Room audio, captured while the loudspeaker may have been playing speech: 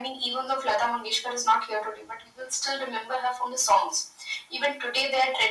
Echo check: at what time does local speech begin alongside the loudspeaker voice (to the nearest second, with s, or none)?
none